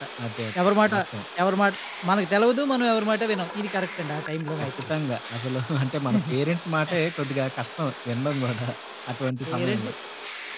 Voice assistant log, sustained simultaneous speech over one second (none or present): none